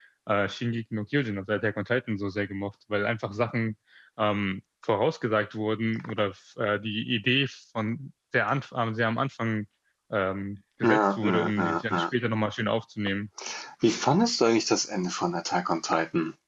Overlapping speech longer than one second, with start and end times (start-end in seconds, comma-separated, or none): 10.8-12.0